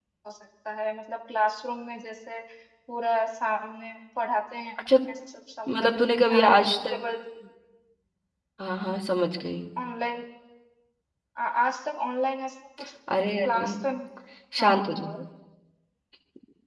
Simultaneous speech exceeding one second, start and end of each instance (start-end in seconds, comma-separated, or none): 5.7-7.0